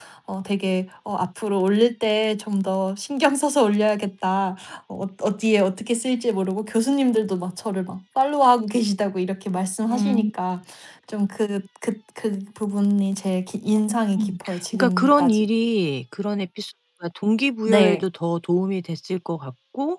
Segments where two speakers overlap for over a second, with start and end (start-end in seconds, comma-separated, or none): 14.2-15.5